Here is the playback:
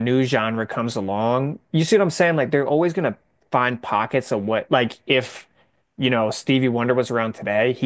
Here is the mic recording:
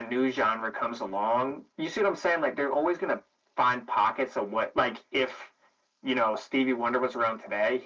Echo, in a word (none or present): present